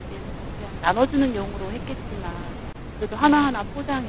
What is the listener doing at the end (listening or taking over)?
listening